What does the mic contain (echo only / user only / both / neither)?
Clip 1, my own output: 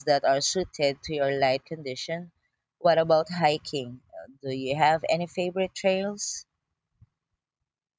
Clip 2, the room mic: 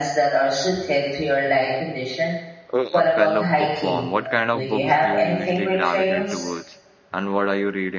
both